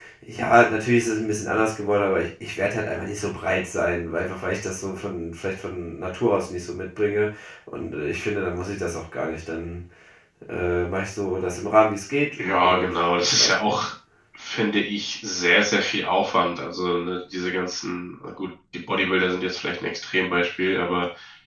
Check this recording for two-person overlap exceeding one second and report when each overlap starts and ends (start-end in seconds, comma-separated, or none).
12.4-13.7